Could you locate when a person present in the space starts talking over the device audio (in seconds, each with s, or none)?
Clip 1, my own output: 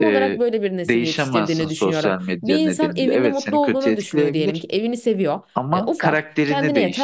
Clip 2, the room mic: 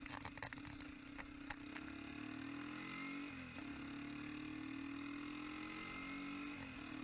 none